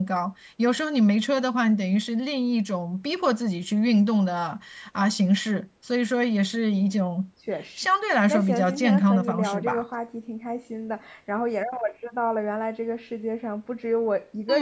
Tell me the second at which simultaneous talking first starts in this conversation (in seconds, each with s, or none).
8.3 s